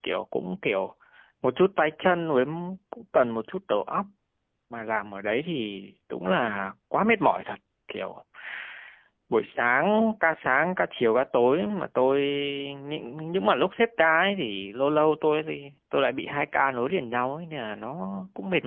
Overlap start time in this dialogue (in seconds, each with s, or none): none